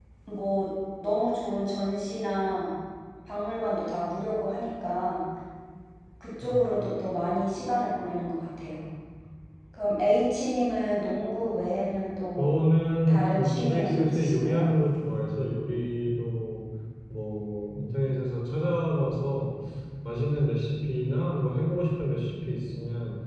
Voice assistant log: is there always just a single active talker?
No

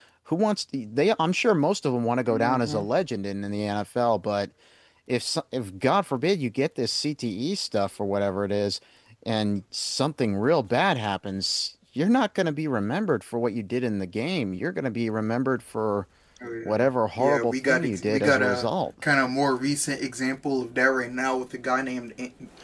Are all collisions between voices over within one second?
No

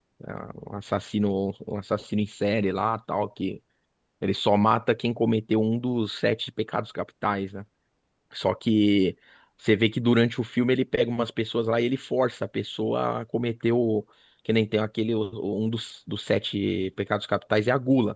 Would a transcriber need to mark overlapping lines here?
No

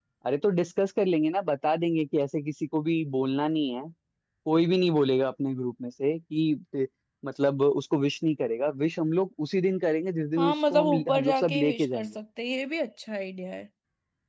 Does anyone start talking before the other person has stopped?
Yes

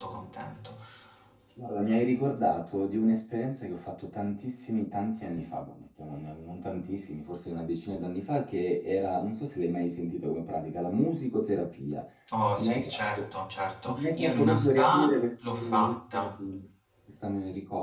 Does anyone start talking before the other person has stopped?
Yes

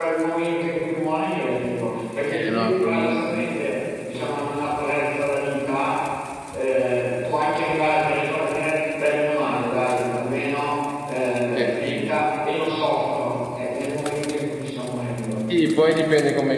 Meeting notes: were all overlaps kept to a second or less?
No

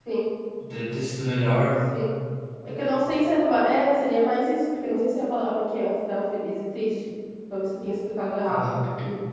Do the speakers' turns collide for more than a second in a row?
No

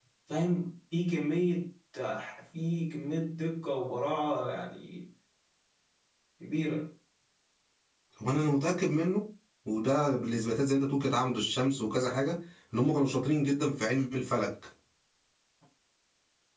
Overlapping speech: No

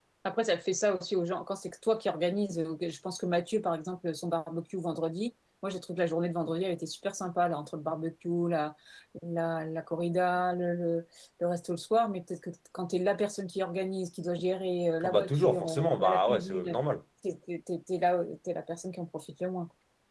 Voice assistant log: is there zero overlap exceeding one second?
No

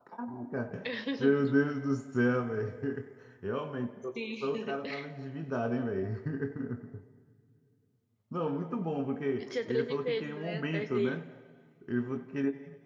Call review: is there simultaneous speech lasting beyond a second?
Yes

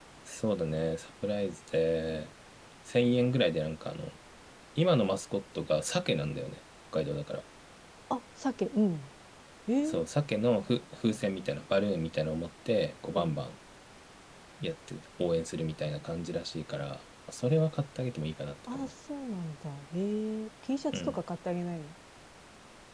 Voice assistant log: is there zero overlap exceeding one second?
Yes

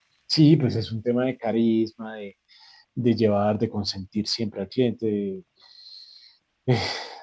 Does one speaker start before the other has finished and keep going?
No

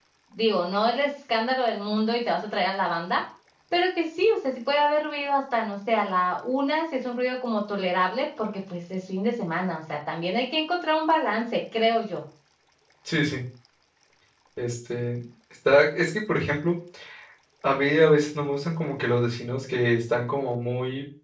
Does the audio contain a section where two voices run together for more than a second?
No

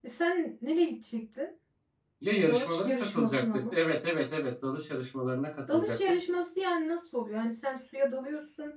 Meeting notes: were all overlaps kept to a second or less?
No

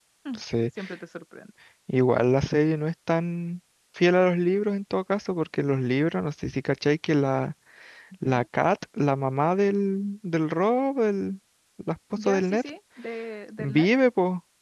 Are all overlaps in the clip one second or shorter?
Yes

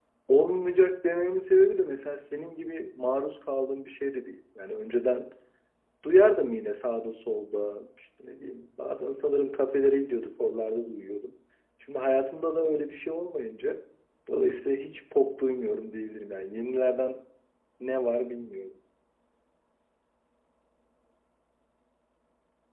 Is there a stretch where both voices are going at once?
No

